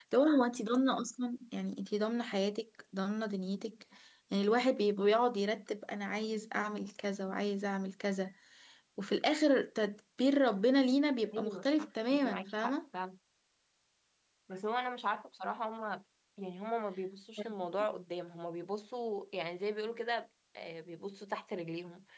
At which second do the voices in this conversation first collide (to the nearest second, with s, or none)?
11 s